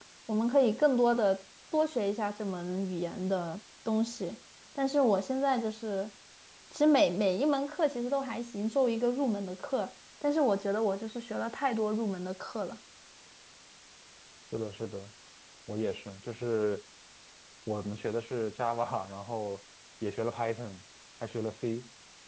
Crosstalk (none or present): none